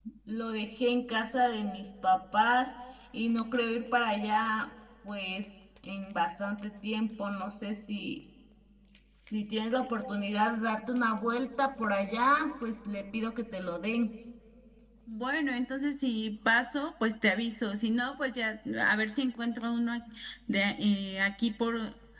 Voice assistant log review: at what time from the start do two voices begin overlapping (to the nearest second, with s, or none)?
none